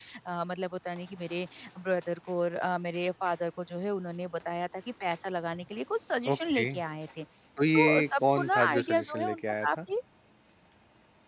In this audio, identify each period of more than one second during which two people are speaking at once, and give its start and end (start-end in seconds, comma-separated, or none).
7.7-9.8